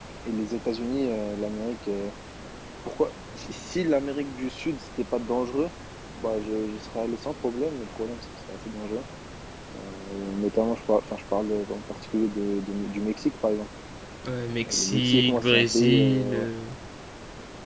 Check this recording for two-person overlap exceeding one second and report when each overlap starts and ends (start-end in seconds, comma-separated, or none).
14.7-16.5